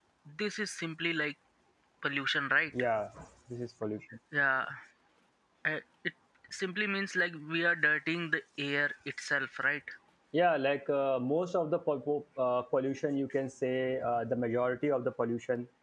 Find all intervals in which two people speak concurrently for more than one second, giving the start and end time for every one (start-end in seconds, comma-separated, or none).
none